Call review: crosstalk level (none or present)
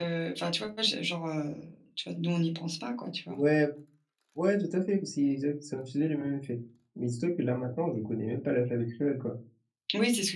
none